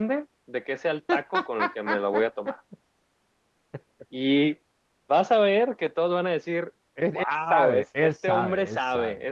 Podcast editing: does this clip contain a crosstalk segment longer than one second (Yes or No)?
Yes